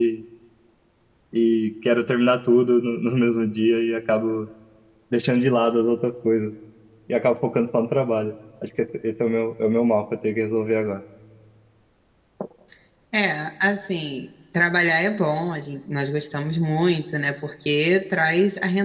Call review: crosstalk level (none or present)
none